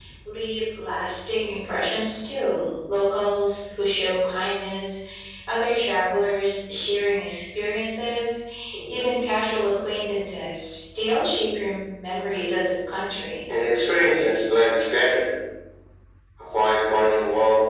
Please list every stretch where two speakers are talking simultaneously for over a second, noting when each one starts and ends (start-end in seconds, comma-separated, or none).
none